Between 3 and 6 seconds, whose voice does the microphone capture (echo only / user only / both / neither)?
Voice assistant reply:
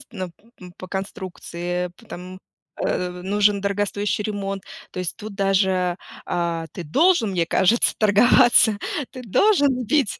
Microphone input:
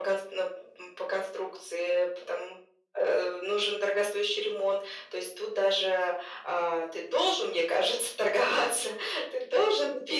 echo only